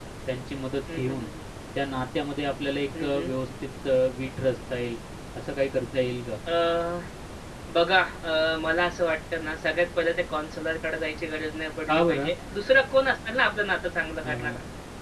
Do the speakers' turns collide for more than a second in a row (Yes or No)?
No